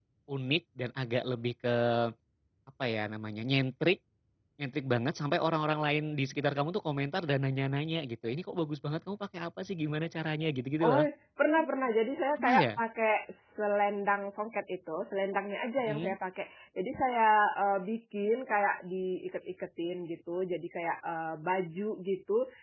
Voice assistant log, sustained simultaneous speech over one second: none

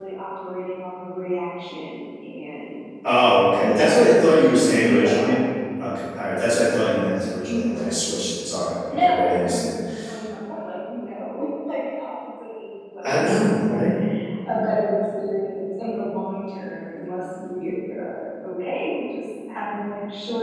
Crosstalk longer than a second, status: present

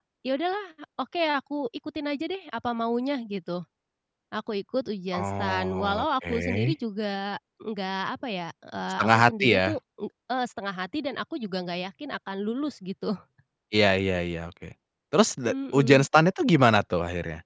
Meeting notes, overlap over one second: present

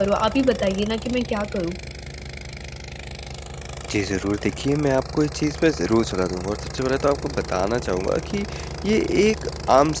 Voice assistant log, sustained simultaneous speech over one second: none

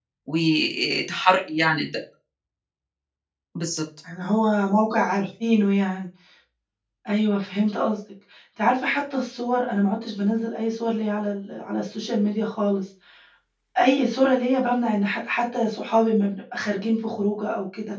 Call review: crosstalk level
none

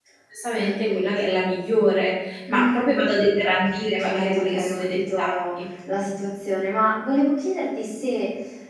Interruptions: present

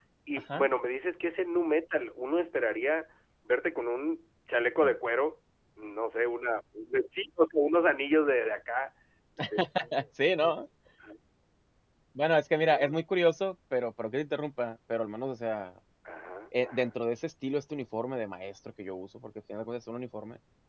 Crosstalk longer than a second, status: none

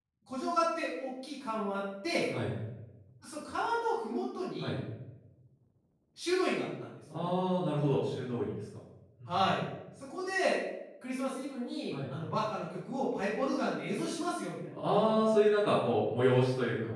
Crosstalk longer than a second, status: none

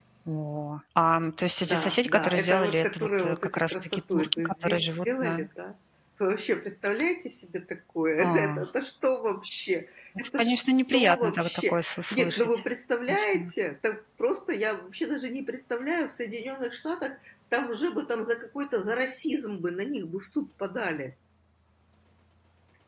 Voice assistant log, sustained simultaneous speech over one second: present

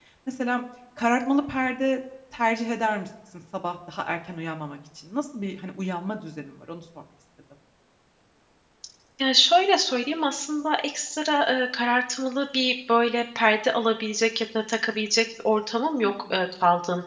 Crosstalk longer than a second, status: none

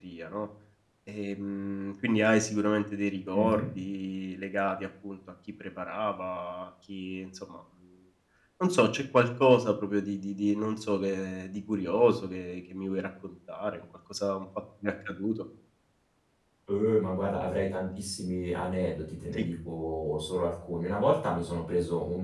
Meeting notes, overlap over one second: none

